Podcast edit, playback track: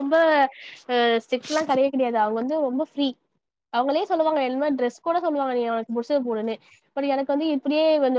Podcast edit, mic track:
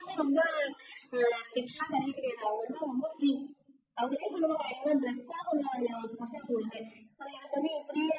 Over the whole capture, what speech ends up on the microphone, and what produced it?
echo only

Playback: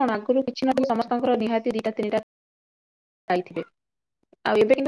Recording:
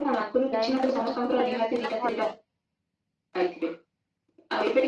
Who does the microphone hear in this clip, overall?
both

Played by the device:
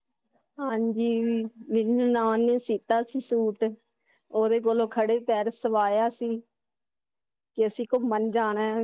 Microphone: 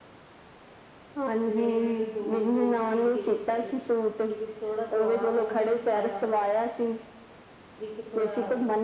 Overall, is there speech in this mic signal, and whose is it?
both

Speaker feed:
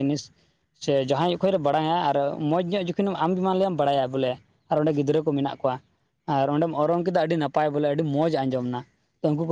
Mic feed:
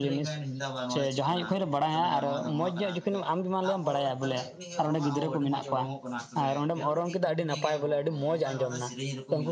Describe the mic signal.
both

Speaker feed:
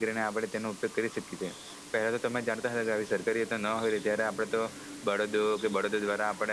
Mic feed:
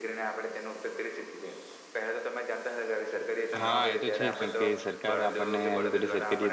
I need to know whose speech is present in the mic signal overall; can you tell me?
both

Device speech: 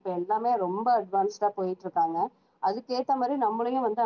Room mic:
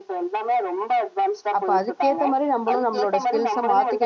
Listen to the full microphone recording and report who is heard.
both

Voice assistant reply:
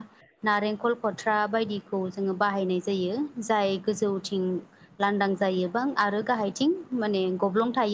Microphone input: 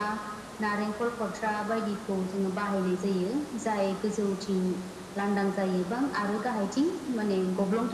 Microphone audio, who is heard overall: echo only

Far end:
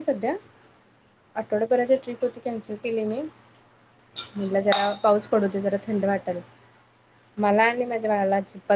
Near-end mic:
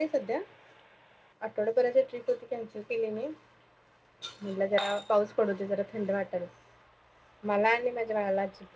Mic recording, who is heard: echo only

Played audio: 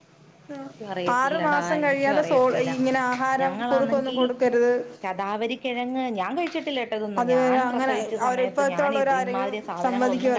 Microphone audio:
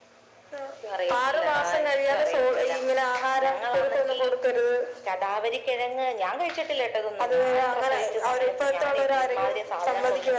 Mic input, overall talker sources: echo only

